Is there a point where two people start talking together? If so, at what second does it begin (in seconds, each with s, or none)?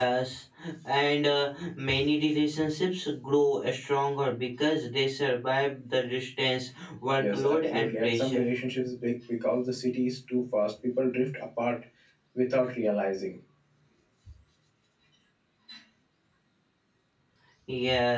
7.2 s